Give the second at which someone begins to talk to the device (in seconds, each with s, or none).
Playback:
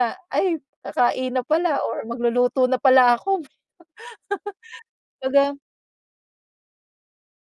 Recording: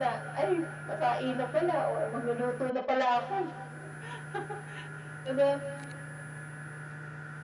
none